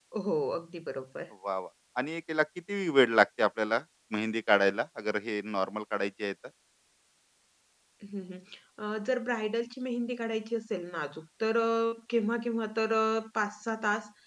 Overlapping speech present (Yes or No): No